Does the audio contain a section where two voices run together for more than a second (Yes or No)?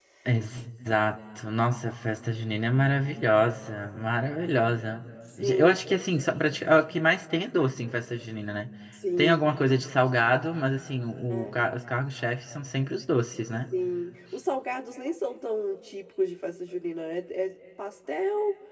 No